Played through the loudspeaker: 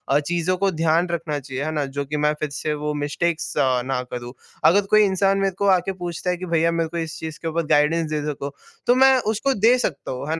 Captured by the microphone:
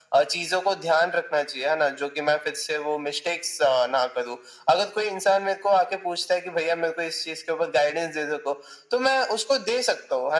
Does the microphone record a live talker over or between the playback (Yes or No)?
No